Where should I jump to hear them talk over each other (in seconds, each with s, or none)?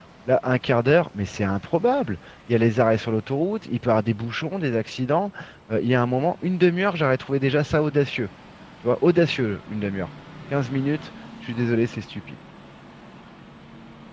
none